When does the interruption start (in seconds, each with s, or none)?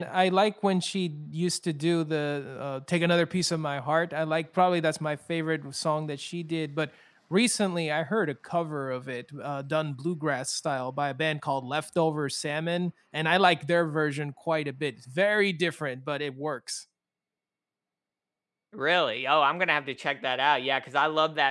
none